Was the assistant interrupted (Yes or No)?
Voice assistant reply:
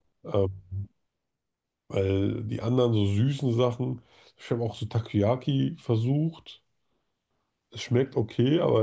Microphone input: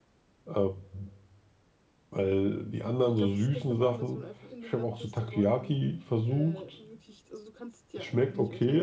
Yes